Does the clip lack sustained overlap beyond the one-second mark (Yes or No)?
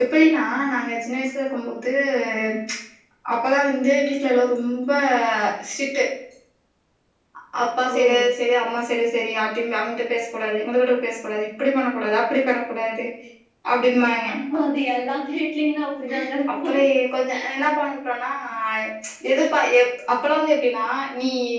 Yes